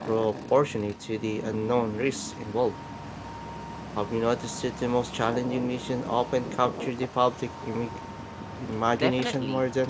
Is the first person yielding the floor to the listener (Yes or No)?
Yes